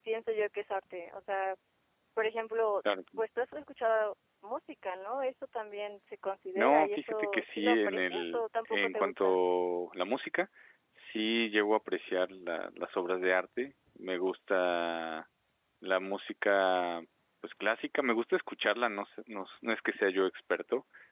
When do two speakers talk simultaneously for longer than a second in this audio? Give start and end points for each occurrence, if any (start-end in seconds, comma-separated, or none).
6.6-9.4